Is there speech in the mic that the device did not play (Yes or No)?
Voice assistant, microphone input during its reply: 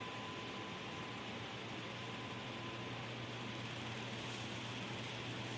No